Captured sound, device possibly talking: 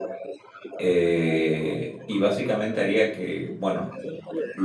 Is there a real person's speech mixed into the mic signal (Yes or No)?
Yes